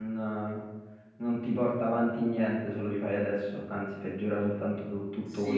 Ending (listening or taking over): taking over